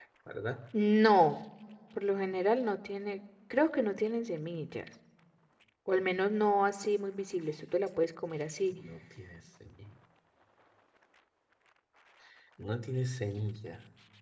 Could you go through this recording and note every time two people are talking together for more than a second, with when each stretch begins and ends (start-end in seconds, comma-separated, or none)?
none